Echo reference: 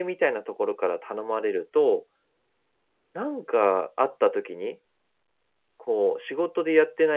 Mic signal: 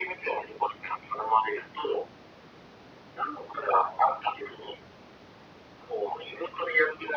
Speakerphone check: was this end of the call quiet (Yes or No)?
Yes